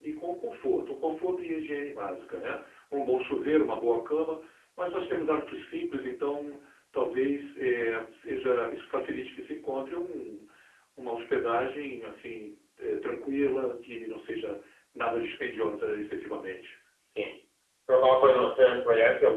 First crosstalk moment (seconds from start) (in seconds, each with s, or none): none